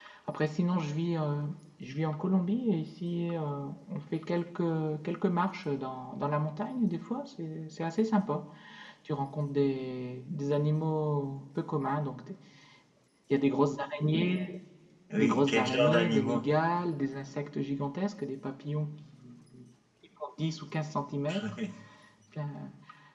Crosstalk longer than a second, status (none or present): present